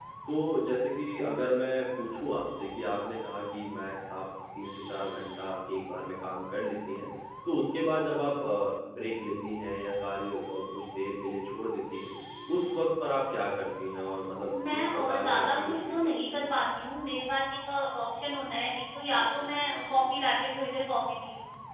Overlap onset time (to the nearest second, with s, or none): 15 s